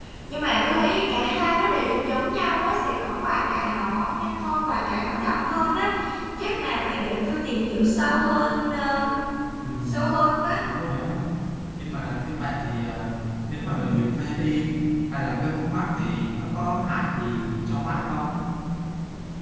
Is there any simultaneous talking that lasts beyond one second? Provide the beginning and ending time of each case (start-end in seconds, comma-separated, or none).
none